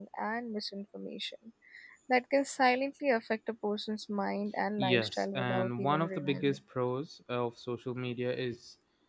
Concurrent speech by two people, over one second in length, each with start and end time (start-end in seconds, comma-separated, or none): 4.8-6.6